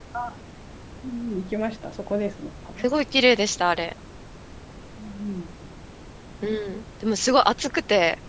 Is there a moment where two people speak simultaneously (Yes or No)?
No